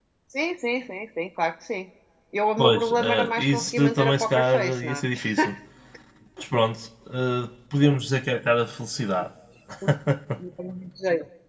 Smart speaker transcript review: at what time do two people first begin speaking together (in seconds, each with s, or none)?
2.6 s